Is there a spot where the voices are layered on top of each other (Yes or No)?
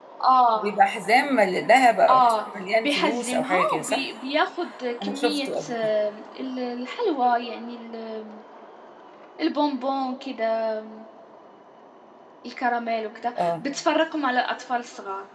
Yes